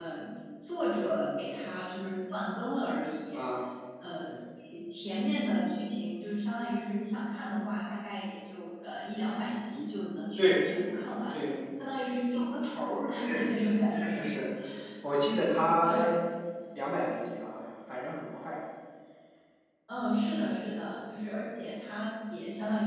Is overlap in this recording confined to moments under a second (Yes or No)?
Yes